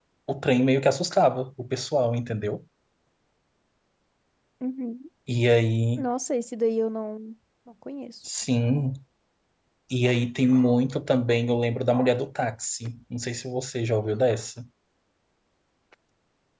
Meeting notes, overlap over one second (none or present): none